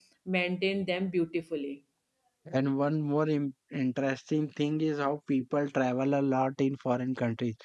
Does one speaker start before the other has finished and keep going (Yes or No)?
No